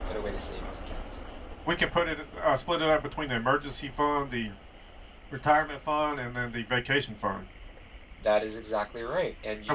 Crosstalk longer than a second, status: none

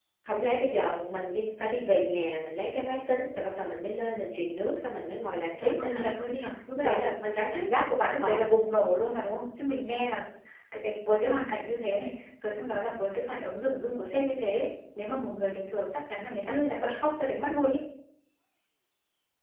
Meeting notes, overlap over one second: none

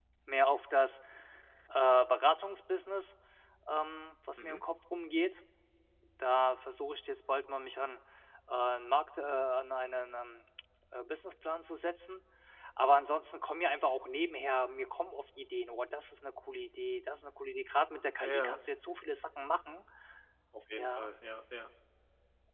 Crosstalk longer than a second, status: none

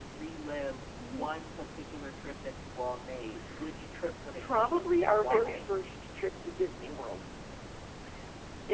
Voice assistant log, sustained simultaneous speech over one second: present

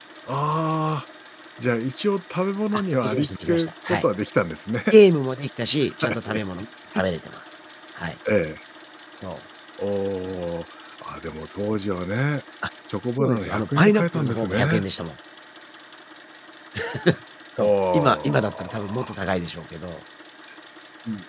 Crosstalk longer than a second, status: present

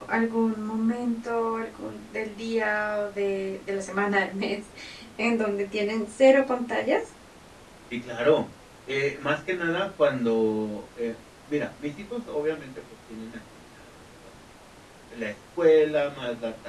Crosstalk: none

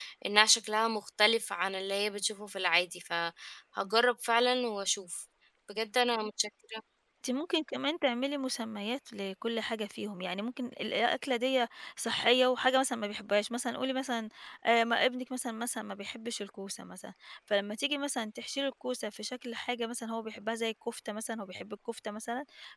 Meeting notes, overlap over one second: none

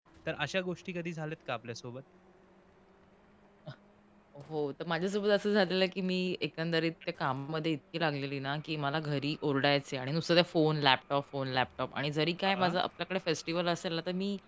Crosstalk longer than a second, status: none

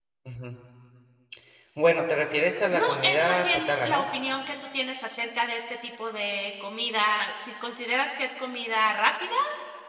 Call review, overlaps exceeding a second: present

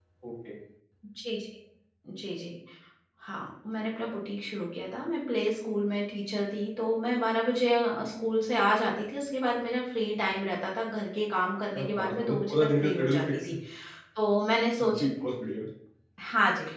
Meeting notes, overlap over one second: present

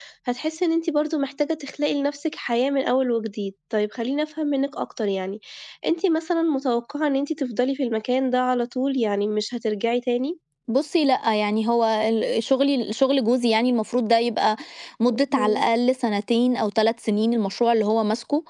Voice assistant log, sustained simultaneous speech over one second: none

